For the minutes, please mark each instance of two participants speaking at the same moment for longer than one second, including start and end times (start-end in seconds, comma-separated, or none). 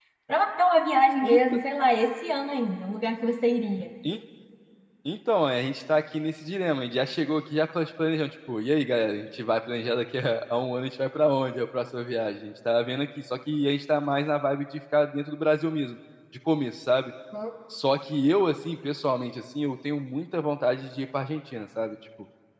none